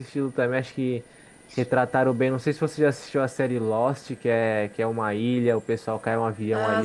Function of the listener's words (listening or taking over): taking over